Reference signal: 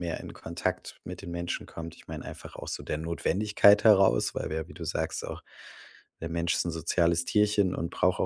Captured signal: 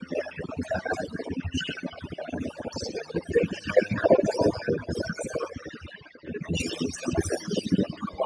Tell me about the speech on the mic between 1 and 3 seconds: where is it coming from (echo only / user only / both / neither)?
echo only